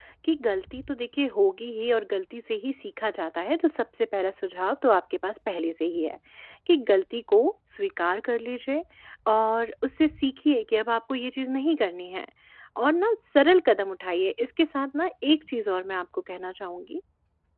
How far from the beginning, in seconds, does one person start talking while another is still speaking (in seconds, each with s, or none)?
none